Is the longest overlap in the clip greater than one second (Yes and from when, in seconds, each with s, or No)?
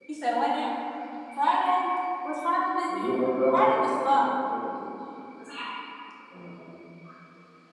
No